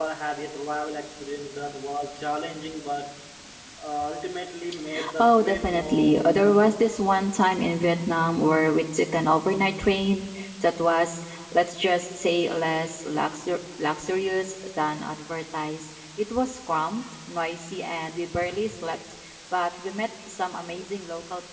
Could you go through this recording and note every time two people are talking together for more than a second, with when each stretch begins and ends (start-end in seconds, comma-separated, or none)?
5.2-6.7